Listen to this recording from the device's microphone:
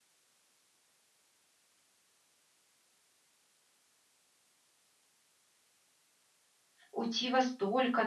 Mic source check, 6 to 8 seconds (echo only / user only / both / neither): user only